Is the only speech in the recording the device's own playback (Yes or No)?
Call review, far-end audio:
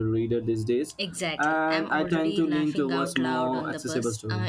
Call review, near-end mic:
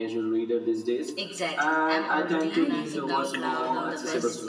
No